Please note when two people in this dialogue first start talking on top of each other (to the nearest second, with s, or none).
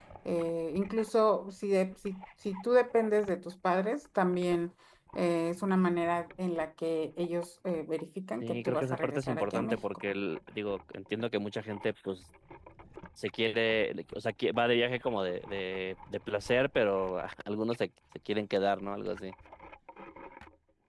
8 s